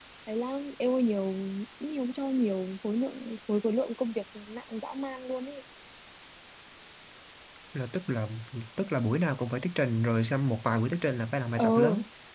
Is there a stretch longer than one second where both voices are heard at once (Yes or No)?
No